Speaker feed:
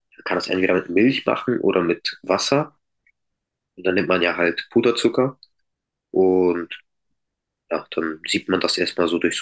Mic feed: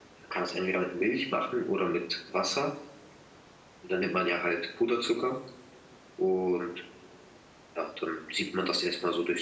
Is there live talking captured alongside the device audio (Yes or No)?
No